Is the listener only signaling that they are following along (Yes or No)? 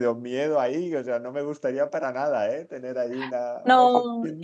No